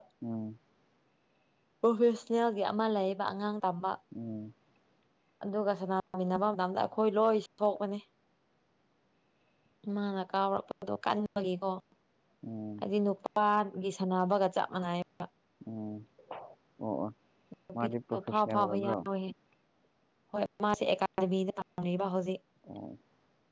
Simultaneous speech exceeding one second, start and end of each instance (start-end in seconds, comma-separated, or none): 17.7-18.9